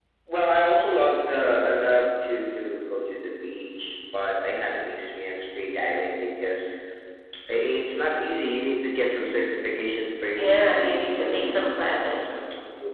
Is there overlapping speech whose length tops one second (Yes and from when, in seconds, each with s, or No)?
Yes, from 10.4 s